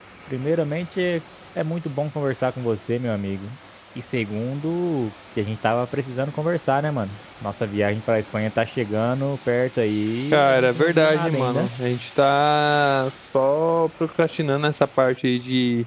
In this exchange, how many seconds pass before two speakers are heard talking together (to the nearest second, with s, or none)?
10 s